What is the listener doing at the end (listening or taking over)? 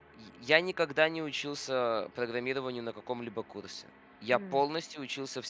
listening